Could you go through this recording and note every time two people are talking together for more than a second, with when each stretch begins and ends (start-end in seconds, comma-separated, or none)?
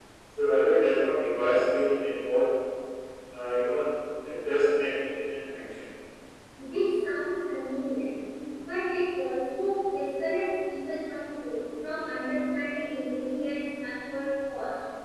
none